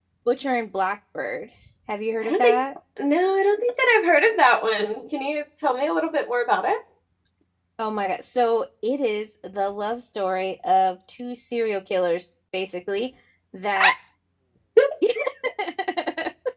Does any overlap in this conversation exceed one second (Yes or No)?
No